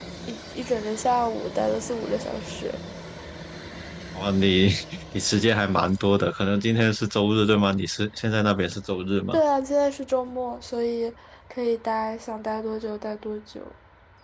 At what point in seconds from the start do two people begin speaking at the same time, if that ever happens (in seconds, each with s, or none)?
none